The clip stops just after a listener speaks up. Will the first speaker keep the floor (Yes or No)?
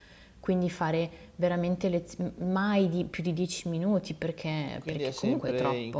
No